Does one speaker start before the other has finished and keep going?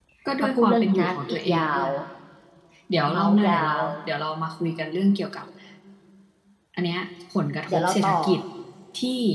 Yes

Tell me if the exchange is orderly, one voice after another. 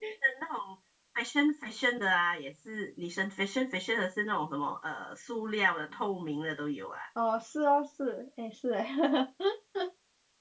Yes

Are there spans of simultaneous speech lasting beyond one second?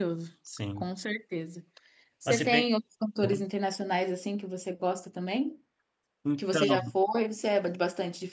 No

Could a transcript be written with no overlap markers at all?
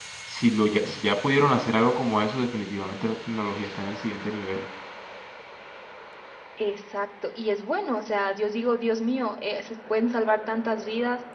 Yes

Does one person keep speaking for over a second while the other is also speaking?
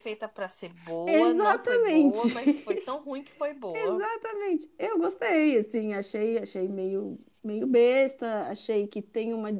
Yes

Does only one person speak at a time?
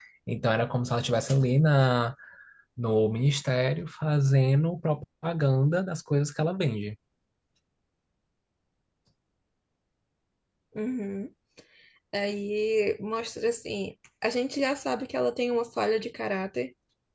Yes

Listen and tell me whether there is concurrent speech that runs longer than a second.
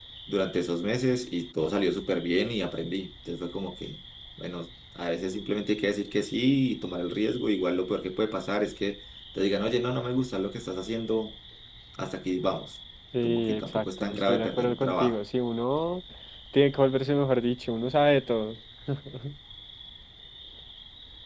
Yes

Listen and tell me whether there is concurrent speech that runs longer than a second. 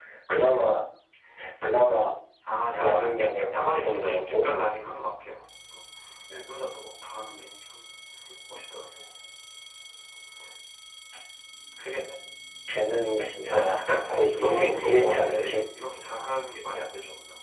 Yes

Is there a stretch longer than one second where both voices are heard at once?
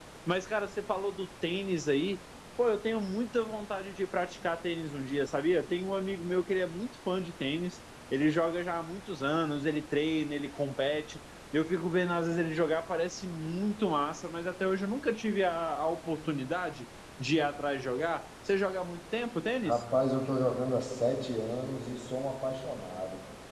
No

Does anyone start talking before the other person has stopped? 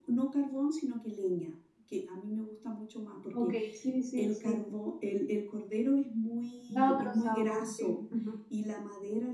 Yes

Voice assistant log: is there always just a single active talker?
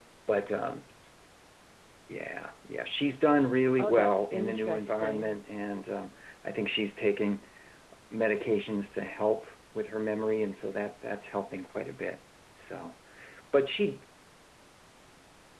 No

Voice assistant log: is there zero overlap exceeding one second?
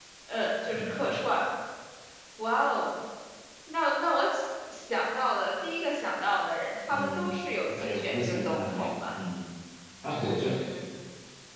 No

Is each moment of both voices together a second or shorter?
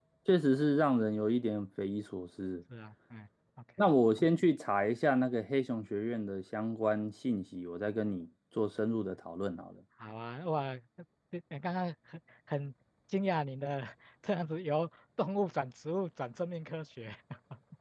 Yes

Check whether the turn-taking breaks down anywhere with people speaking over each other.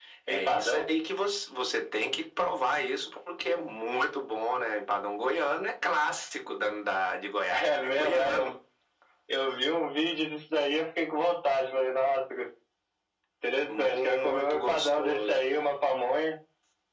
Yes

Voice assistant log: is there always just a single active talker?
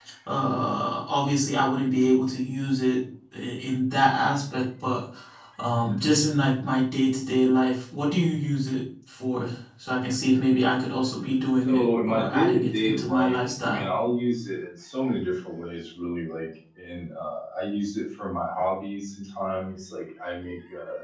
No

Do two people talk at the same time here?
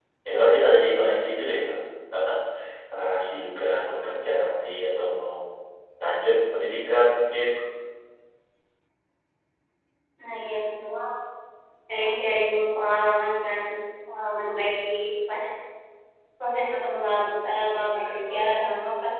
No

